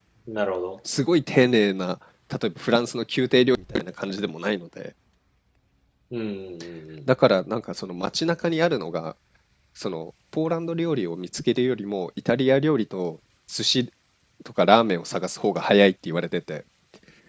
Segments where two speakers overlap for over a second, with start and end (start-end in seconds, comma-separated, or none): none